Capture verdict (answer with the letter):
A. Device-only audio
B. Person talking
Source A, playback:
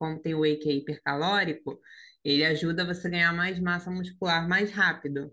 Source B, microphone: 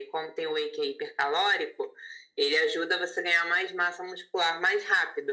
A